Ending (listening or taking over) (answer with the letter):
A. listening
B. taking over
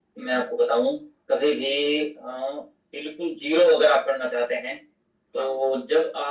A